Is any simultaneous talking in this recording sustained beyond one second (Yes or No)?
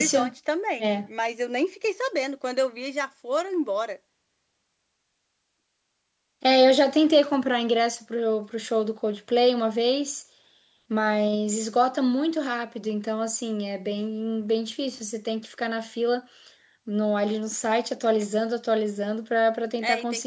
No